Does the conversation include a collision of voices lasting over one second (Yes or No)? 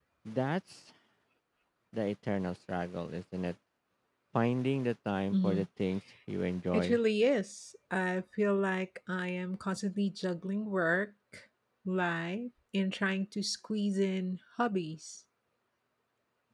No